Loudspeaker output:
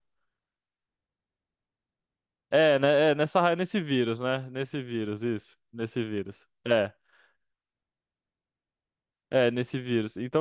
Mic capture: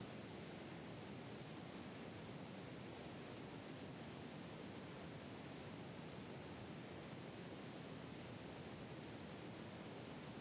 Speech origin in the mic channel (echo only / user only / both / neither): neither